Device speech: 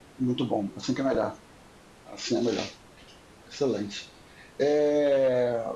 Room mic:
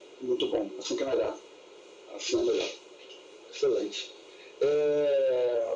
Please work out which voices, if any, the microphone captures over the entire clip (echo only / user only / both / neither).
echo only